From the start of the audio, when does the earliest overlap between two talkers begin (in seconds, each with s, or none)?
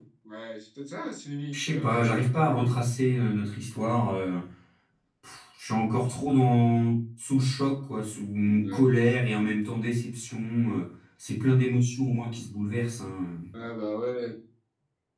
1.5 s